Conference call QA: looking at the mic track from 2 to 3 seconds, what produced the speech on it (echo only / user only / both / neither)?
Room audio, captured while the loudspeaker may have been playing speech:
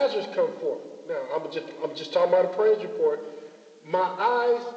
echo only